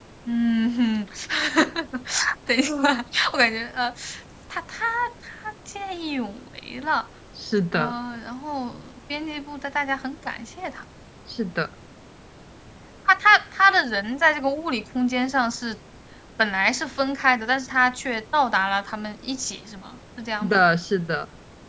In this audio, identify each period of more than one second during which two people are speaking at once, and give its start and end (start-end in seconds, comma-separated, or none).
none